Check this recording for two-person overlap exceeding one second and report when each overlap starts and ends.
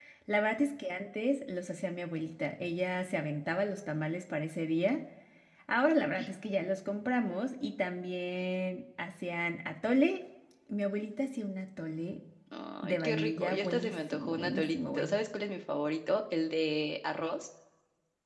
12.8-15.2

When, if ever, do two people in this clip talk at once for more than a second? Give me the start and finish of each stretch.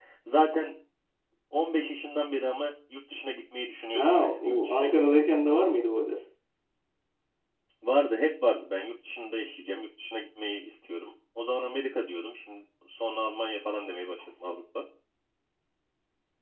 3.9-5.6

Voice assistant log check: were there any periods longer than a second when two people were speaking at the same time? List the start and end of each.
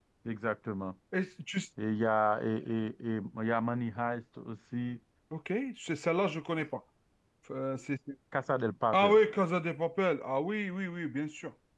none

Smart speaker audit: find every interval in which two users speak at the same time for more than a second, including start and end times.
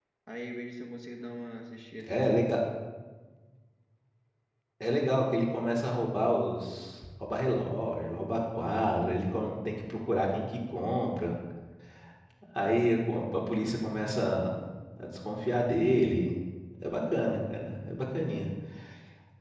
none

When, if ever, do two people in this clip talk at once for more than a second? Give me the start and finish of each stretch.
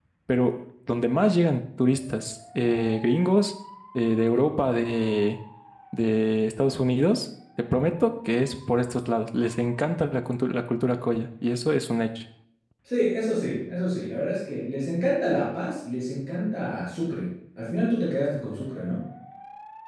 none

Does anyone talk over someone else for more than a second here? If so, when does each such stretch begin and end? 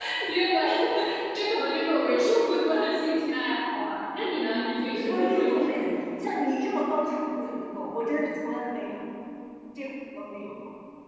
4.3-5.8

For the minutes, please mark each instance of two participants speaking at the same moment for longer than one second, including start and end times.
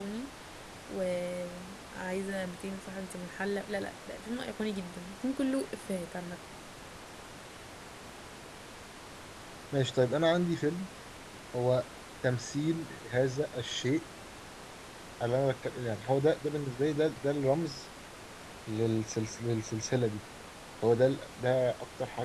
none

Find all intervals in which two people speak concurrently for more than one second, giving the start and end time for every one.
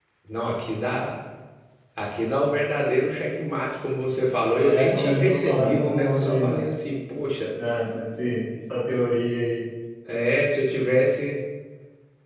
4.6-6.6

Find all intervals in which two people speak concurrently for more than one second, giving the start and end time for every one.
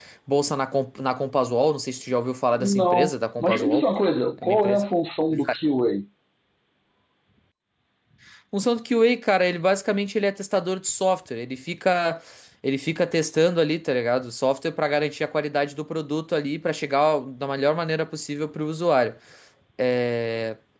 2.5-3.9

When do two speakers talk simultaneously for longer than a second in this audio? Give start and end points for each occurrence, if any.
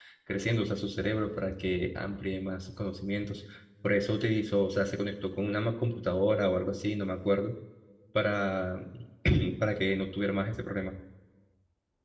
none

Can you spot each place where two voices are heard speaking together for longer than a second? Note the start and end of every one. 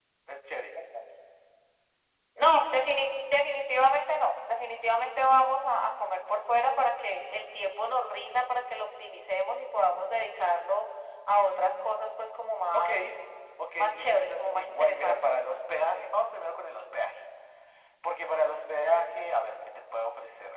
13.8-15.4

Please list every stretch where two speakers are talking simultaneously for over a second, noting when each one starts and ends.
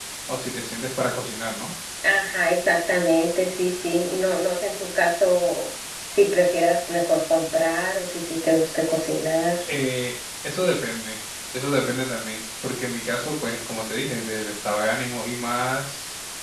none

